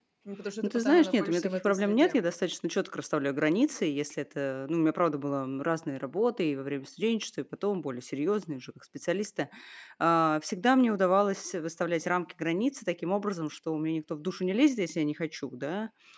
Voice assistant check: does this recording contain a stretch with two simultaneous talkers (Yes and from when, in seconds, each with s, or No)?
Yes, from 0.6 s